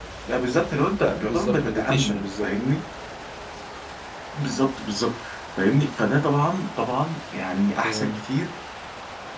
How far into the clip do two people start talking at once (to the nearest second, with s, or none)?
1 s